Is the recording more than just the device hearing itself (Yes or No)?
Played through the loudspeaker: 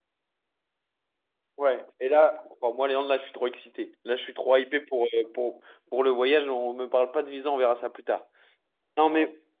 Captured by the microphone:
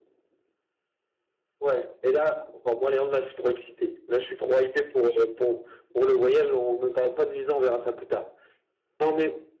No